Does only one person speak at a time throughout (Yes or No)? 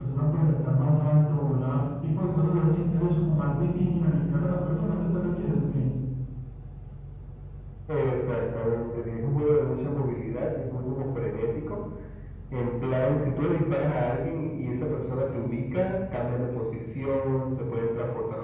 Yes